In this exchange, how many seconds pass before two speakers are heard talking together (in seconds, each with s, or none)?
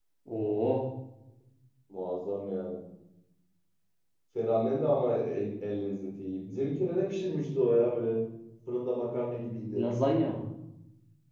none